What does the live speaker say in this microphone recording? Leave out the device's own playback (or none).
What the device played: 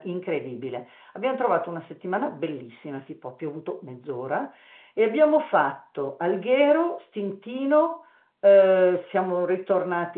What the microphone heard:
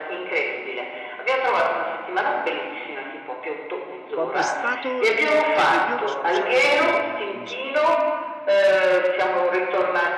Quando è stato? Che, che periodo, scusa? Eh, mi s-